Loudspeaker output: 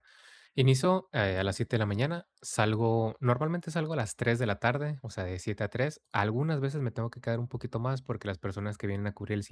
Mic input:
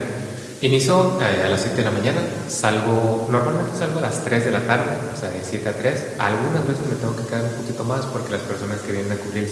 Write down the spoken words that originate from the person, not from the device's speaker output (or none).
none